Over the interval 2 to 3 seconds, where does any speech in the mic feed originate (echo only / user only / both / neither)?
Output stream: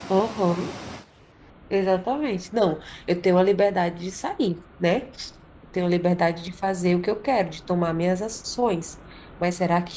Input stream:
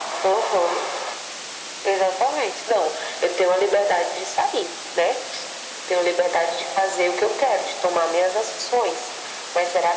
echo only